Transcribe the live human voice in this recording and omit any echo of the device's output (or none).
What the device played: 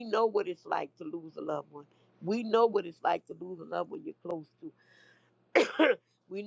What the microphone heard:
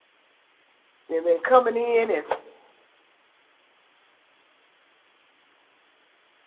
They've been coming in and